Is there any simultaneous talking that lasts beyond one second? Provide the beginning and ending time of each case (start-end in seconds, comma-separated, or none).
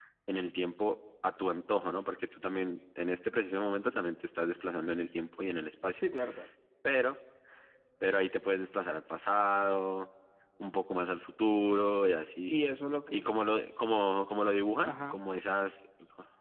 none